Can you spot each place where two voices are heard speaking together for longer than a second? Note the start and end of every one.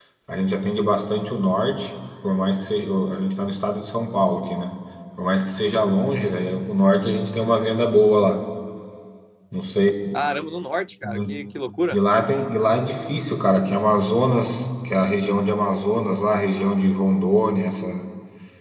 none

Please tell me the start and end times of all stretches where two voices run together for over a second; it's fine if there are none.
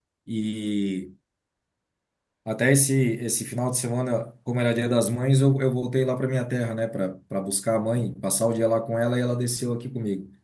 none

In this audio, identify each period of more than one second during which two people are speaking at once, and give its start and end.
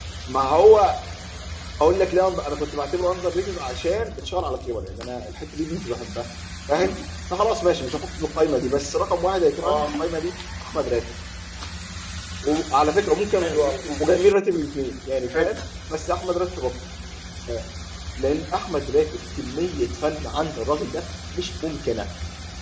none

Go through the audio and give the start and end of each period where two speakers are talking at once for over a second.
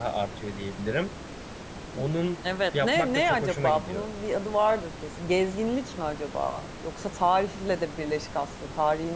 2.7-4.0

